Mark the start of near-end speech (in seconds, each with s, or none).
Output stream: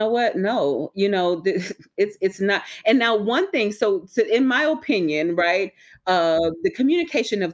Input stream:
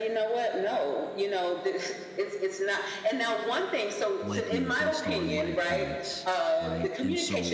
4.2 s